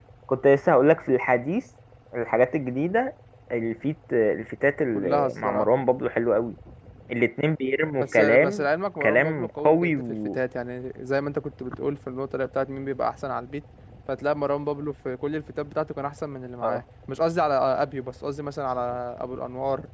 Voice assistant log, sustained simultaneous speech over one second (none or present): present